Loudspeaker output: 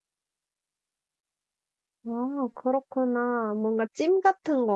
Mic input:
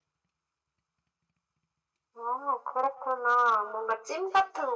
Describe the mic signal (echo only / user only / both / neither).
echo only